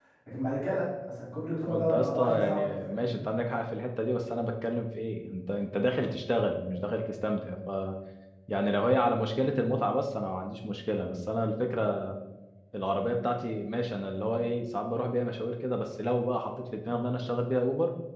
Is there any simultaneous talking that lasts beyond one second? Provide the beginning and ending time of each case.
1.6-3.2

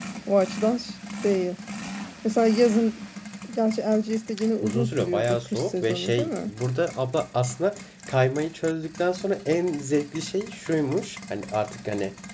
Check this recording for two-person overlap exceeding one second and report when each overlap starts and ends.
4.6-6.5

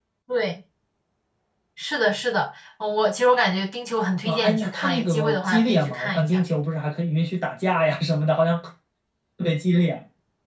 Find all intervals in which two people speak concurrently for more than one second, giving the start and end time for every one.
4.2-6.4

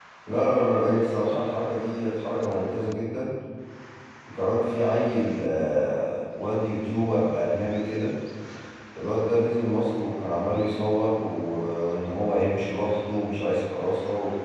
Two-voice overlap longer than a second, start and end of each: none

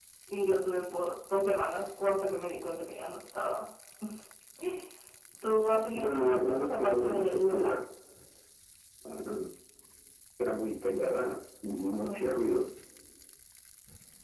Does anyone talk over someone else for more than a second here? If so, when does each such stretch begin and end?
5.9-7.8

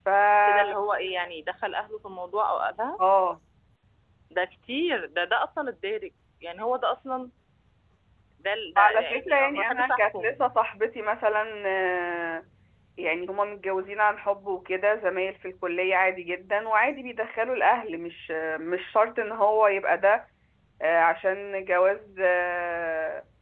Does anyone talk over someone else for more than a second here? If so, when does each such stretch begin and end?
8.8-10.3

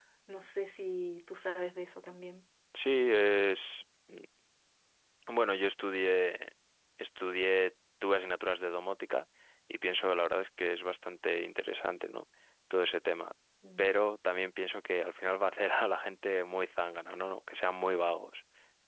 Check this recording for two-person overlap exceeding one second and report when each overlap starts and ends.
none

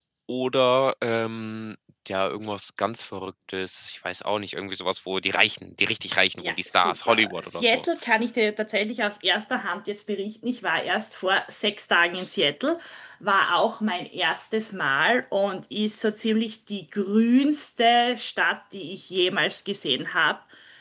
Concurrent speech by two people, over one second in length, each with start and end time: 6.4-7.8

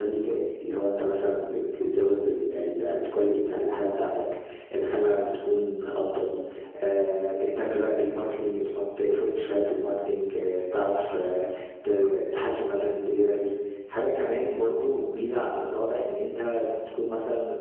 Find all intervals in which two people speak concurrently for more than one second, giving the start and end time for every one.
none

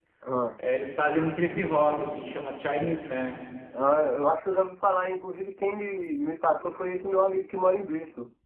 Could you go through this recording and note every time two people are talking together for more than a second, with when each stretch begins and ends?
none

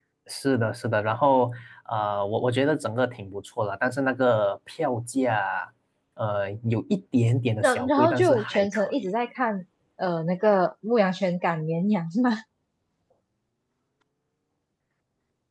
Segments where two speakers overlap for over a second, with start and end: 7.6-9.1

